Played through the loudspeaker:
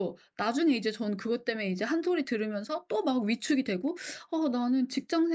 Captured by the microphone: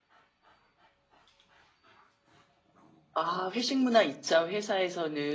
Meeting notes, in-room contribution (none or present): present